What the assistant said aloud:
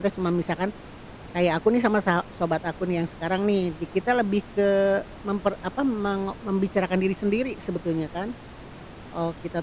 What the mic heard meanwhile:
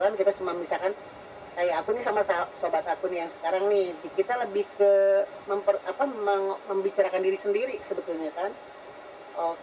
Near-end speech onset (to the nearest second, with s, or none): none